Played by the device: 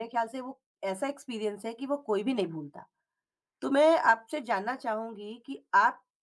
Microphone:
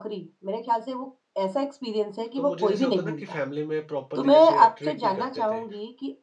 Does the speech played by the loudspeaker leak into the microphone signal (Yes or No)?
Yes